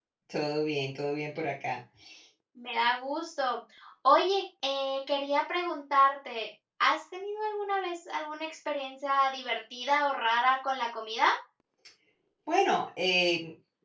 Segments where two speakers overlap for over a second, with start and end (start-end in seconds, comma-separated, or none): none